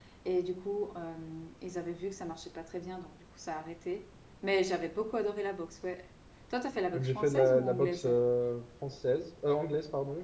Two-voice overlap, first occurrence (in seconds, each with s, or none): 6.9 s